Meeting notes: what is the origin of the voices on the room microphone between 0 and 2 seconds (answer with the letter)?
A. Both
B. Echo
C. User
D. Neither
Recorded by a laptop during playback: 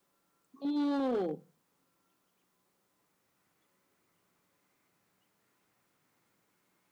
C